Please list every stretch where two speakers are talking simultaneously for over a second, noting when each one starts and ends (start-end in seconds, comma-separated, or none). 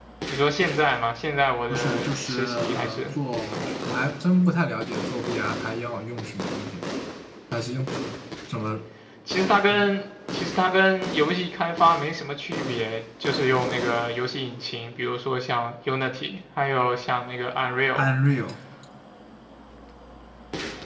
1.7-3.0